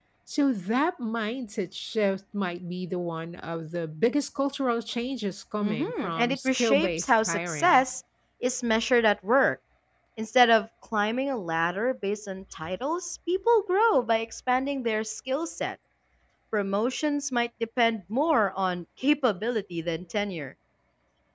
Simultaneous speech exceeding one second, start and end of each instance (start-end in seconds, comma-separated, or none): 5.6-7.8